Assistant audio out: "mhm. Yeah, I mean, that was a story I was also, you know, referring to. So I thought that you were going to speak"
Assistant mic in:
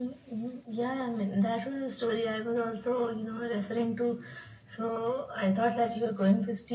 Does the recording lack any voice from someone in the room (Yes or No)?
Yes